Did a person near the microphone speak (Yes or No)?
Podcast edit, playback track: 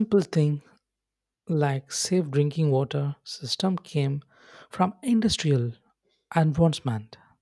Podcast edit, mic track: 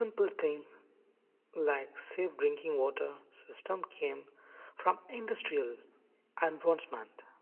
No